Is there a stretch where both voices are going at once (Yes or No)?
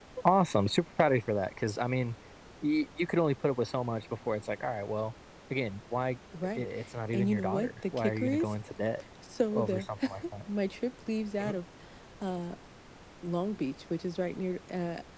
Yes